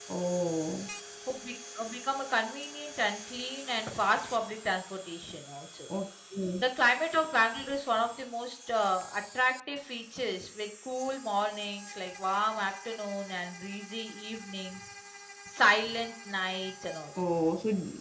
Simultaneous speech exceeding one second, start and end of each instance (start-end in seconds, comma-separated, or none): none